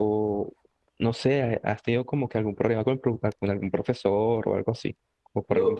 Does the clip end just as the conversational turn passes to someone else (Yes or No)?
Yes